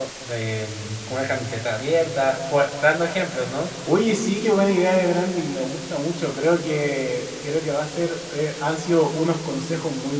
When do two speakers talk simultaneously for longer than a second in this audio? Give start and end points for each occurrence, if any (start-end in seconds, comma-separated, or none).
none